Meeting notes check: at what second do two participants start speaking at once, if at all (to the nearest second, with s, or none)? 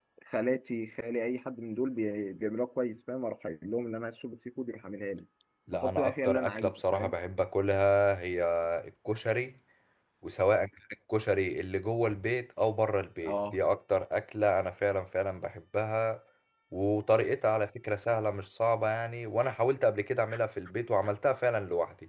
6 s